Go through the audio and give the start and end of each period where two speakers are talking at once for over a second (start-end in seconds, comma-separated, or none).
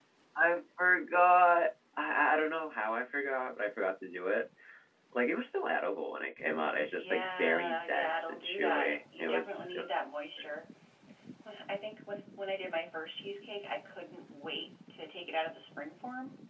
7.0-9.8